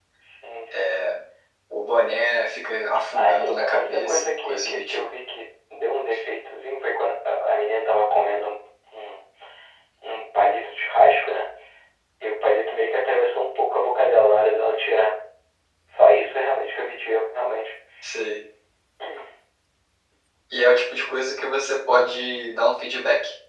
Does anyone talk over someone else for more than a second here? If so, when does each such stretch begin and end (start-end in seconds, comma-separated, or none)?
3.1-5.0